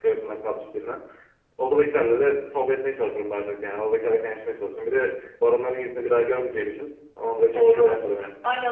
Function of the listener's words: taking over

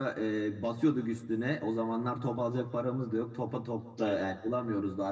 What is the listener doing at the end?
listening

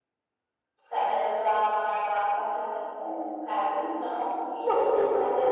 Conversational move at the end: taking over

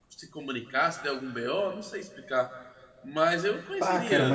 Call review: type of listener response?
taking over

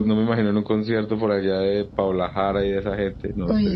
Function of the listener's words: taking over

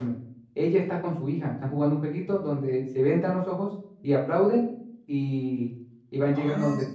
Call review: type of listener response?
taking over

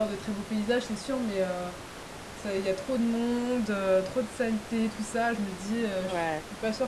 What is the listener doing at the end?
listening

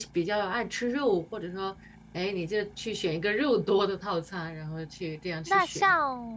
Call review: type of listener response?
taking over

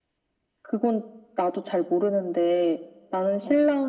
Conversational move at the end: listening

